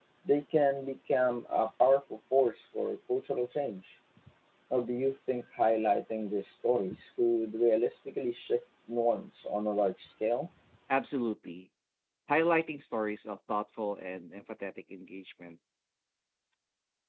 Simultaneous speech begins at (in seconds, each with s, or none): none